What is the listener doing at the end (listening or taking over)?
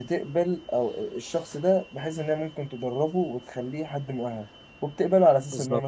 listening